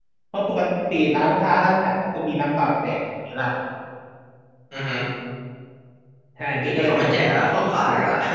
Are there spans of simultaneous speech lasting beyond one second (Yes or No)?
Yes